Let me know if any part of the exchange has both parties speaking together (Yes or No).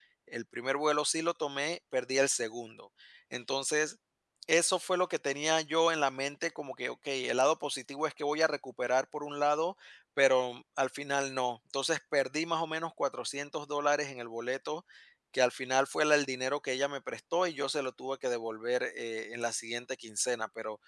No